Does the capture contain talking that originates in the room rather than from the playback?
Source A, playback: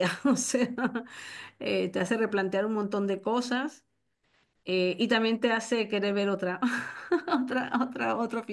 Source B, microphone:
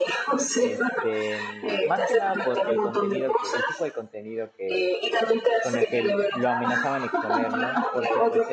Yes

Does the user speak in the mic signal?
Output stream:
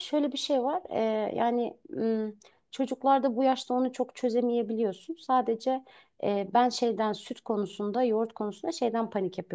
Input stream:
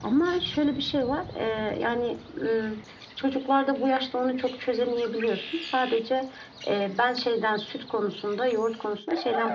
No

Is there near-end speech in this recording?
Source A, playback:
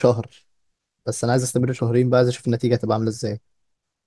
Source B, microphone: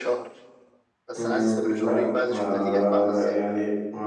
Yes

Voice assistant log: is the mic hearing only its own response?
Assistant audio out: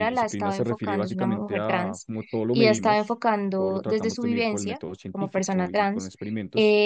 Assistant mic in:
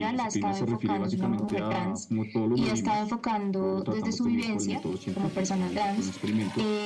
Yes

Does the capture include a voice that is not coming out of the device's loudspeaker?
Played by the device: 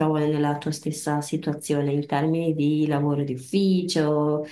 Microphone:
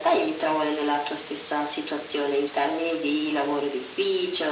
No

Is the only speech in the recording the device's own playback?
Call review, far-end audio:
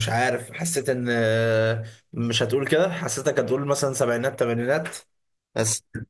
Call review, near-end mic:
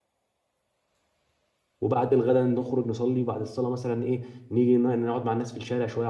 No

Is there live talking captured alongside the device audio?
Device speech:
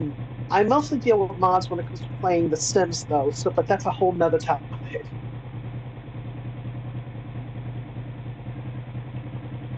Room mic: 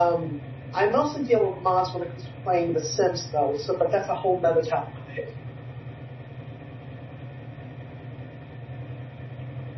No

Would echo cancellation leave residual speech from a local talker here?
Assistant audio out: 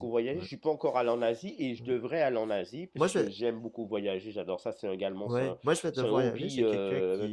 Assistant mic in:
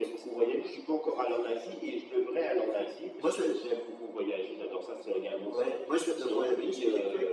No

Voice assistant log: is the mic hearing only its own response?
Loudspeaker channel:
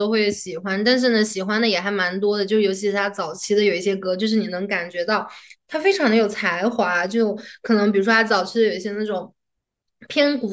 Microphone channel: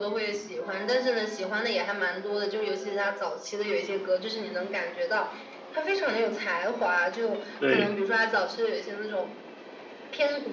No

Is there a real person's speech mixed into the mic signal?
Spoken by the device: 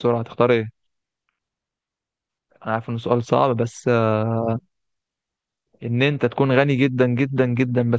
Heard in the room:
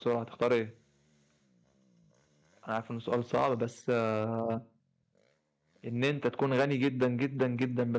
No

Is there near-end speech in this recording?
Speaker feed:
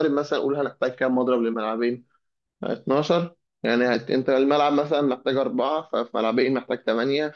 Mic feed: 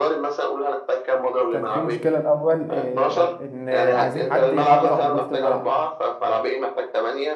Yes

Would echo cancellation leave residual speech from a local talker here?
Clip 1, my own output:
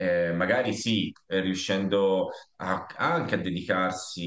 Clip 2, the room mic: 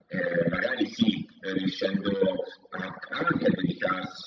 No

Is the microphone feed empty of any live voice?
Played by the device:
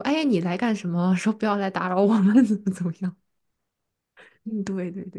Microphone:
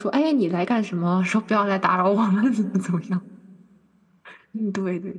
Yes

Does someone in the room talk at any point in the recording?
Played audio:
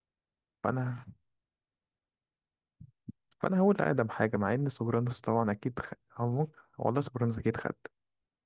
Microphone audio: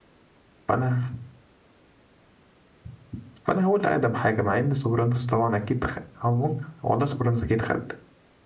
No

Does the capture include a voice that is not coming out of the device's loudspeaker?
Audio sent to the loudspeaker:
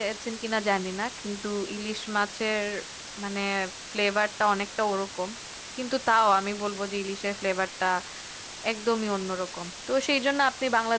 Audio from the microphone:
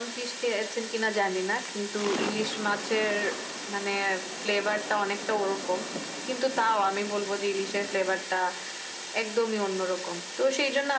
No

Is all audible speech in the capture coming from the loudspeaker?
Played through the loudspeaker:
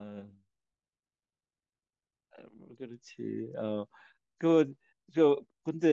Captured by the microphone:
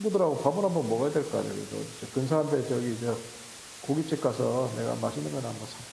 No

